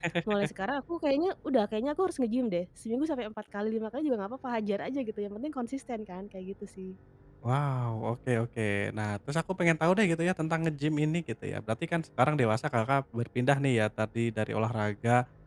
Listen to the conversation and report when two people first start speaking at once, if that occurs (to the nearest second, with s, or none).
none